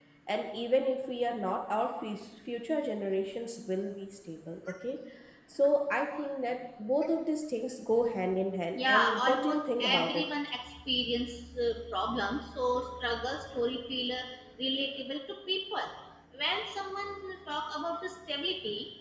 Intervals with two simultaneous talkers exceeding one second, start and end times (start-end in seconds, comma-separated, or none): 8.8-10.2